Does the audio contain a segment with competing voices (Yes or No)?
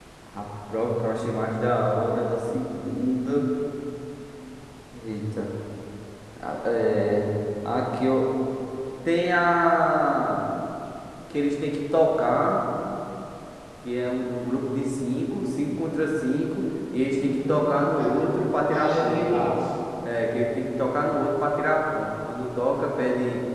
Yes